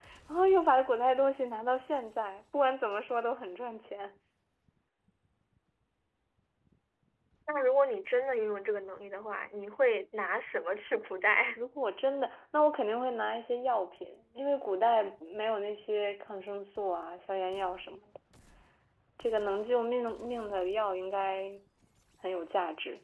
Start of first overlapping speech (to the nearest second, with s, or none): none